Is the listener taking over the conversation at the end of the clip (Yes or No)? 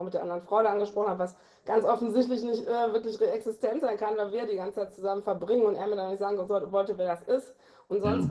No